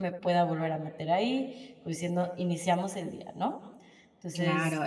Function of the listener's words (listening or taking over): taking over